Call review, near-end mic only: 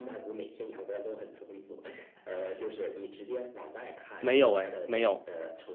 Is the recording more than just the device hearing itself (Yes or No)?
Yes